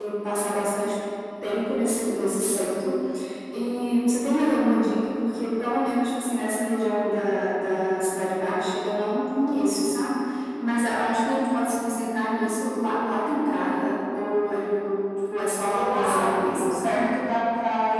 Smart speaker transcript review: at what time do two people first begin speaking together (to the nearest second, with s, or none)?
16 s